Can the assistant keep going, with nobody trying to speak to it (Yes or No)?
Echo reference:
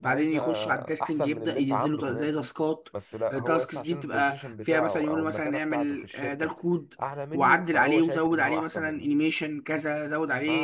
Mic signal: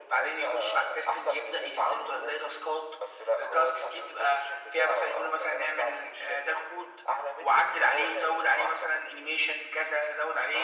Yes